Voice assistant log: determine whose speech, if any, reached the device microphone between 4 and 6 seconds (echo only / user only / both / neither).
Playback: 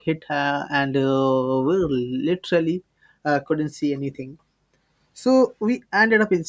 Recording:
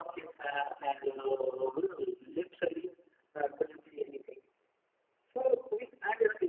echo only